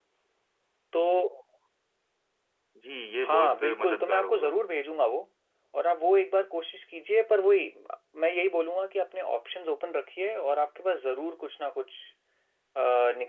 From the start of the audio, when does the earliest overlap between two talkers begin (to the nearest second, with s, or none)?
3 s